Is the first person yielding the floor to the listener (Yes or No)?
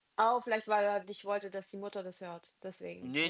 Yes